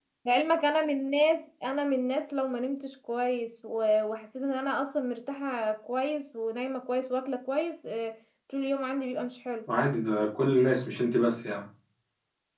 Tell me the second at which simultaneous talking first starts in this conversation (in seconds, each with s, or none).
none